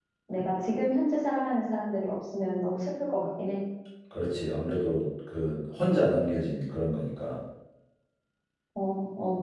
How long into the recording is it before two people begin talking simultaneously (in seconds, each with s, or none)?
none